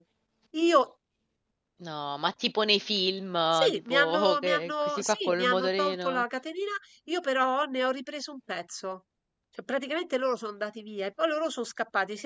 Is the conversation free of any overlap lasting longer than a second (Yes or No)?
No